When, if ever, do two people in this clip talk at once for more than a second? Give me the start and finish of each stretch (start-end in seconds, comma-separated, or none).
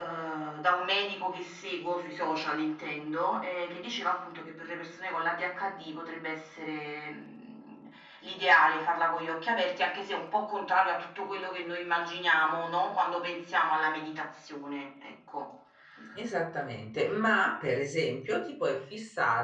none